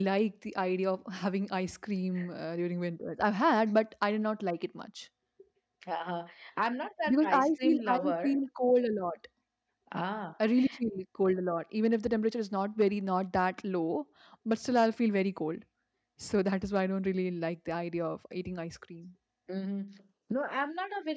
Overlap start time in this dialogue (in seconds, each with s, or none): 7.1 s